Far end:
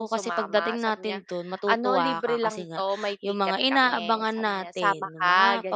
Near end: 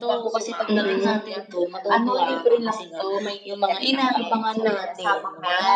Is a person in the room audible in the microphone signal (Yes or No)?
Yes